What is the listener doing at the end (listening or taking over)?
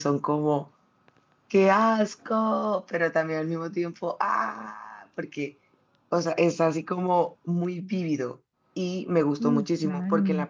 listening